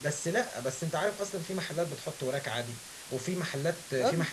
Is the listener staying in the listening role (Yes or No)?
Yes